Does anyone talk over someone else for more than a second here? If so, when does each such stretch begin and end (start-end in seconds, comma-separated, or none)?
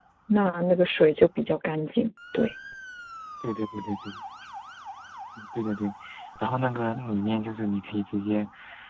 none